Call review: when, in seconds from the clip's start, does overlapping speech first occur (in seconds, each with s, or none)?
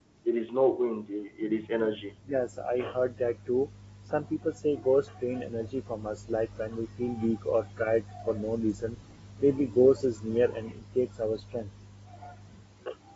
none